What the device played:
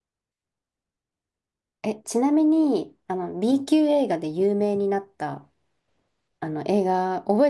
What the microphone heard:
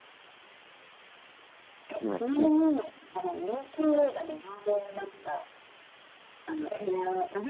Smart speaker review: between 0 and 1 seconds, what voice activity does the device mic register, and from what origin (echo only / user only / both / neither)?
neither